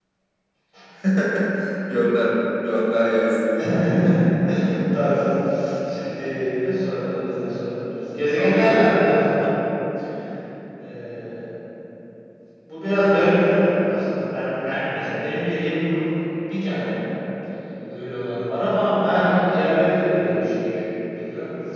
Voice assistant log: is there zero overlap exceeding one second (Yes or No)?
Yes